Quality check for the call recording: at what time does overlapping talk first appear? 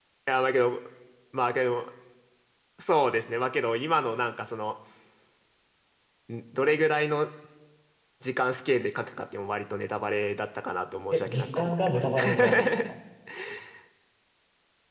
11.1 s

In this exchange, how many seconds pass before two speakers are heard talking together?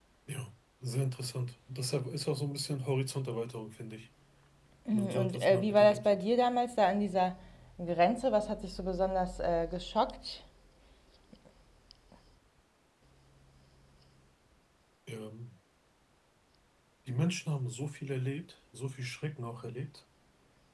4.9 s

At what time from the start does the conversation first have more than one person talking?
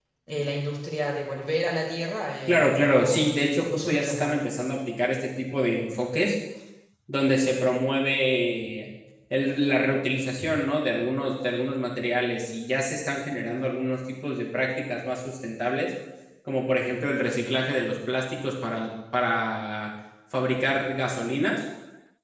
2.5 s

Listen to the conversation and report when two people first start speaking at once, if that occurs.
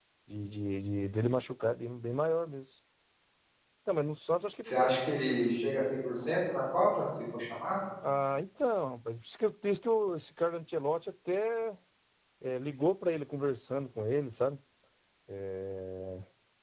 none

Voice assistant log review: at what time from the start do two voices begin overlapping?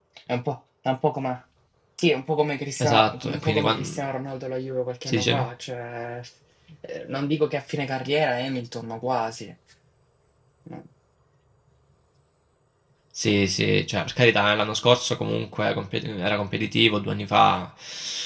2.8 s

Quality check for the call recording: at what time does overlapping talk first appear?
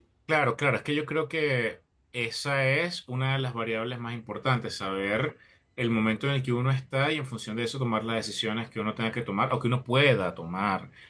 none

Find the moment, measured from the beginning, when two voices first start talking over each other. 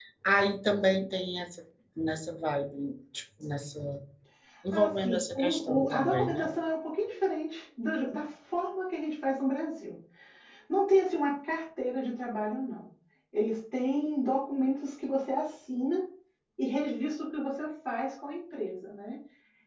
4.7 s

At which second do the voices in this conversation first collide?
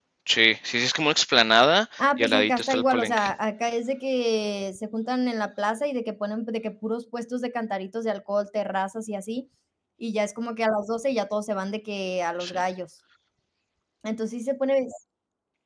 2.0 s

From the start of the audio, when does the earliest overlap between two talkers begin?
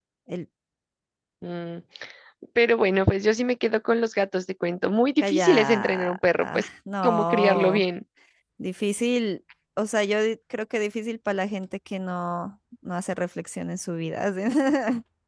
5.2 s

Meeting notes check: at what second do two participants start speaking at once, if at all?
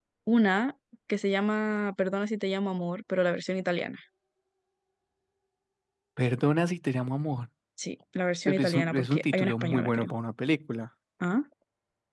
8.5 s

